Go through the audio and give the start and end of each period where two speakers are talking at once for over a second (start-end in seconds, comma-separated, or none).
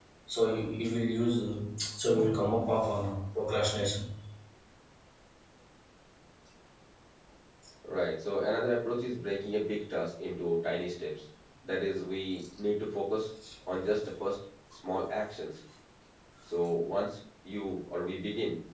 none